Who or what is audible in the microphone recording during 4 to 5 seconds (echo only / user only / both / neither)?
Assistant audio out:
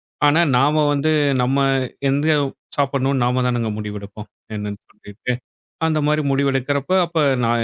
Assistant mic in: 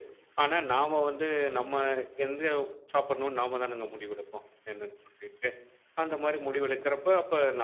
echo only